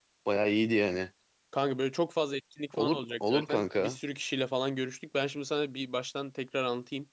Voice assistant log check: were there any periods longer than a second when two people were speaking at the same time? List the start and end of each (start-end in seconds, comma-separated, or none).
2.8-4.0